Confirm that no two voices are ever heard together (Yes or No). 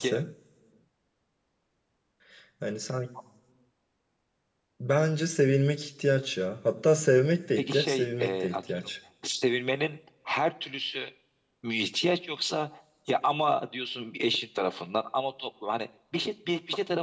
No